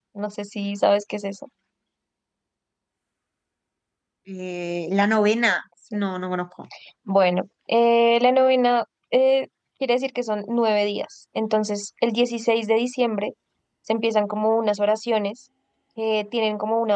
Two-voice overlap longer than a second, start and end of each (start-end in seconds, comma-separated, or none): none